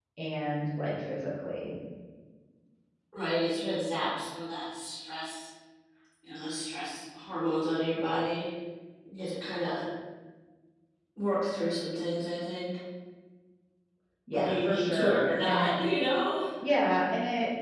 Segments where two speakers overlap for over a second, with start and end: 14.3-15.8

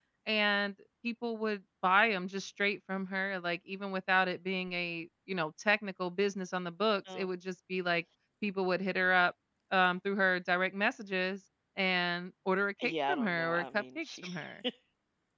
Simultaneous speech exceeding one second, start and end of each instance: 12.8-14.3

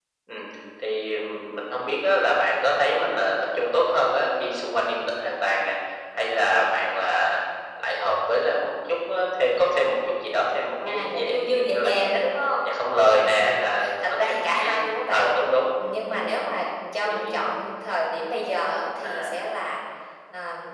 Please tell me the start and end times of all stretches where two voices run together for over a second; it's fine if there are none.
10.8-12.1, 14.0-15.3

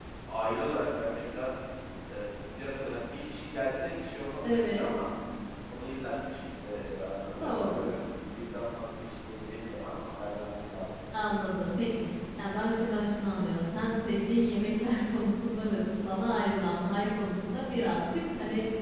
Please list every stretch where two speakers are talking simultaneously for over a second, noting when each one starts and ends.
none

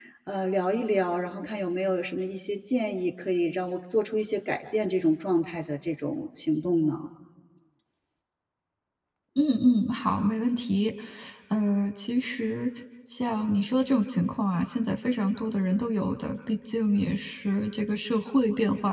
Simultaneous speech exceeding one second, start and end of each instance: none

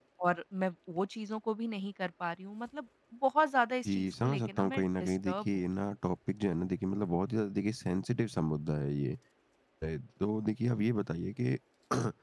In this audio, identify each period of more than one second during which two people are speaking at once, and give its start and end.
3.8-5.7

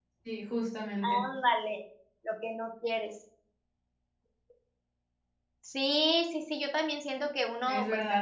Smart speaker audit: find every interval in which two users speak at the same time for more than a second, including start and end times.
none

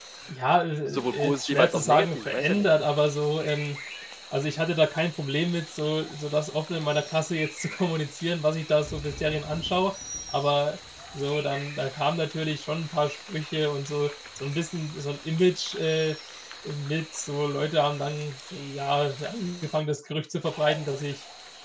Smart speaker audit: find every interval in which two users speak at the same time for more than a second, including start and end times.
0.9-2.7

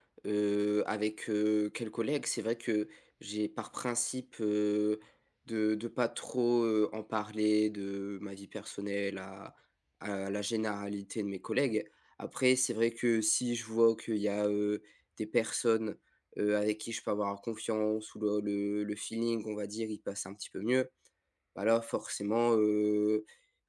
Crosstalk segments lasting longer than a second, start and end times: none

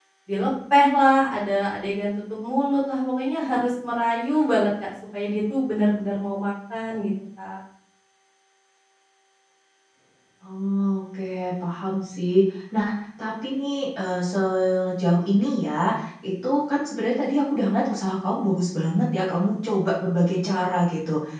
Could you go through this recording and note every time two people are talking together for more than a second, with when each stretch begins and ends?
none

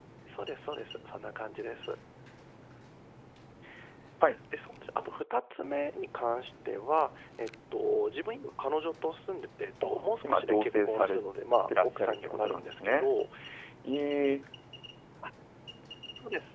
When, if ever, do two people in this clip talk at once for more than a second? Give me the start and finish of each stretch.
9.8-11.2, 11.7-13.1

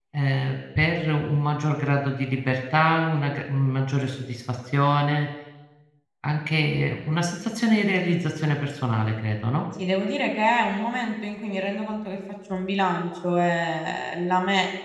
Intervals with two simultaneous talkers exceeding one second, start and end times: none

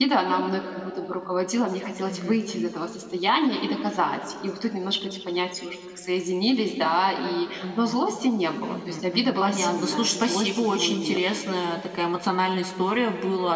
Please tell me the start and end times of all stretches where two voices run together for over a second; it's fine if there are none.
8.7-11.2

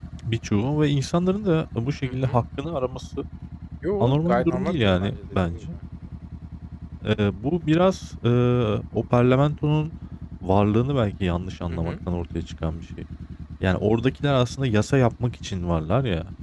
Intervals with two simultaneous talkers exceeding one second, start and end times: 4.0-5.6

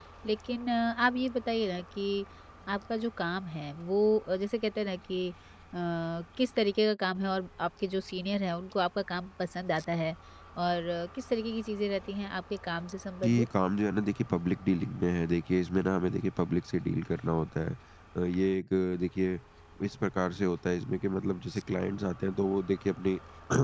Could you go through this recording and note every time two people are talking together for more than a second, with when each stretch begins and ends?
none

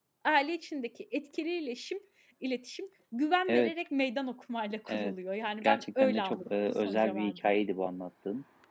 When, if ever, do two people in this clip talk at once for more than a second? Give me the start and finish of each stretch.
5.6-7.4

